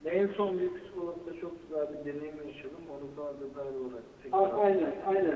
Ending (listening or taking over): taking over